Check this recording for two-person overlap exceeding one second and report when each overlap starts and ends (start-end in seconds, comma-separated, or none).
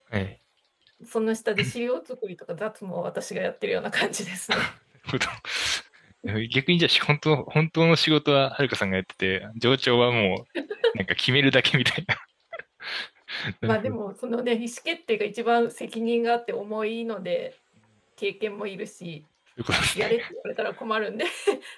none